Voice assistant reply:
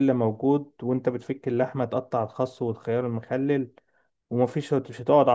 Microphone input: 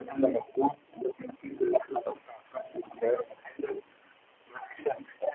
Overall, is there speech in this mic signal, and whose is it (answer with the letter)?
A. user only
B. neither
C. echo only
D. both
C